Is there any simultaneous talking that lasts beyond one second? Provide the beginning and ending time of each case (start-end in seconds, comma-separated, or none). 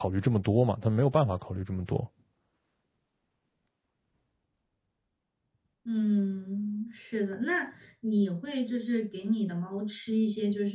none